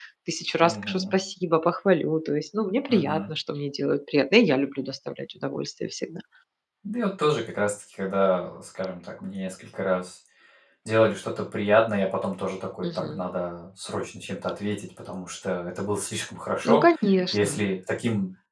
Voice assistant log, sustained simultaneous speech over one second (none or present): none